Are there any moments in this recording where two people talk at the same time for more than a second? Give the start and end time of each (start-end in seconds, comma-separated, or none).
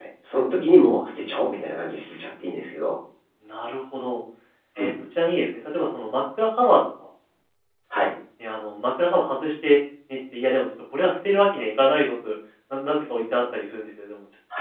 none